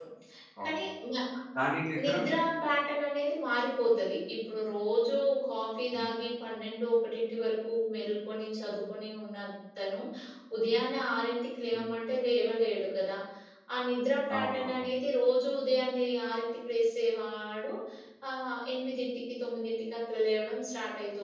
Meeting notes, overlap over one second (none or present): none